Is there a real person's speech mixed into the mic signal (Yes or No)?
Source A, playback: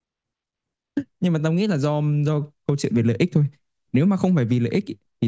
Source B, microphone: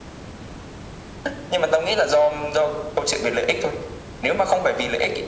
No